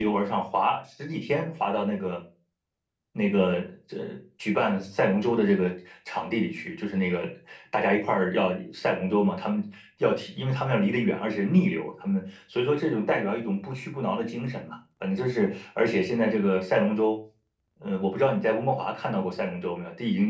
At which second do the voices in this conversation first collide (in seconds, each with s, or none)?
none